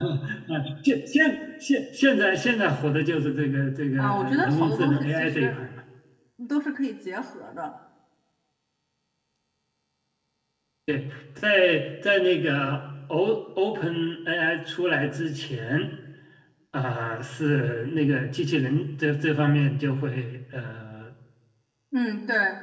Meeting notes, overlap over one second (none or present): present